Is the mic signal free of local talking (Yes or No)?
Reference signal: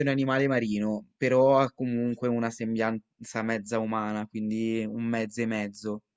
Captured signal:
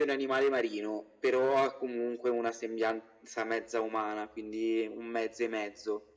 Yes